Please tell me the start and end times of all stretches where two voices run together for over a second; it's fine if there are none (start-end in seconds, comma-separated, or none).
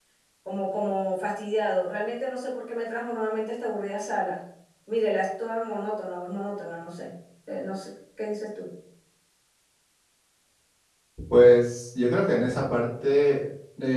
none